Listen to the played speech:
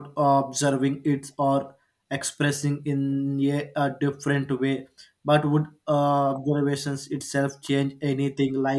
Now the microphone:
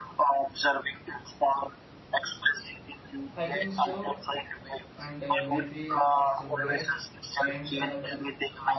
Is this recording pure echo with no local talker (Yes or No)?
No